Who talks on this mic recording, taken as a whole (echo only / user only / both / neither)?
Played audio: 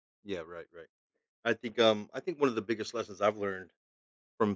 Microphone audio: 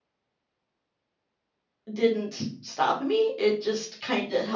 user only